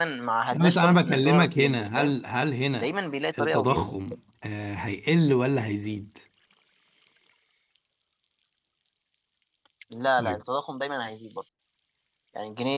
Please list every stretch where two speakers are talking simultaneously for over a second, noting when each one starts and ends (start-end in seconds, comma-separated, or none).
0.5-2.1